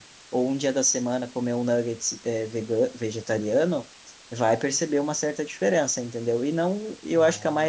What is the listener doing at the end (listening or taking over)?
listening